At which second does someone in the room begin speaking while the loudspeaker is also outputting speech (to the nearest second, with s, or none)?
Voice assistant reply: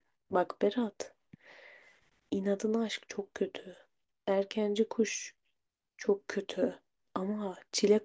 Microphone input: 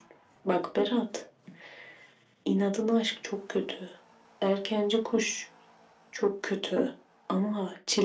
none